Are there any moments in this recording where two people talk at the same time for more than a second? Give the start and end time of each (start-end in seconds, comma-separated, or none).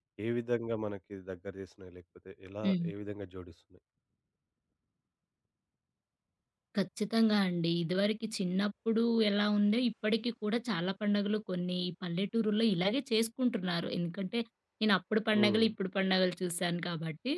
none